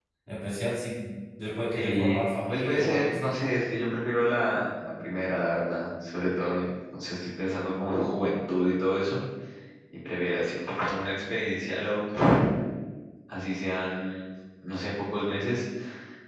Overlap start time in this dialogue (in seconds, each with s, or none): 1.8 s